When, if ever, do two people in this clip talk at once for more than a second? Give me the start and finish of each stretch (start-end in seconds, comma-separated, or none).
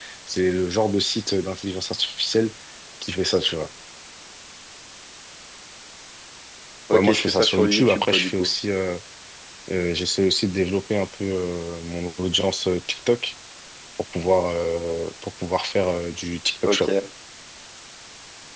6.9-8.5